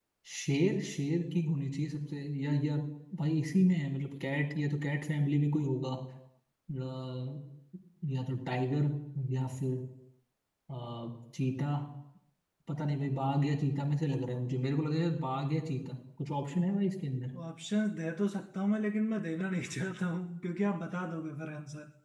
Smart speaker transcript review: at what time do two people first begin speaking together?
none

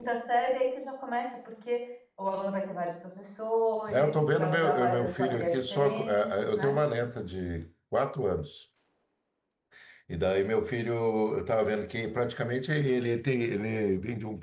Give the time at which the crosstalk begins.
4 s

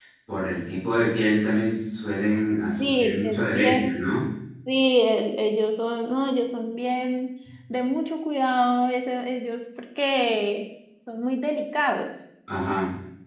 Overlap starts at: 3 s

